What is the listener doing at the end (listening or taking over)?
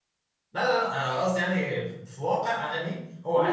listening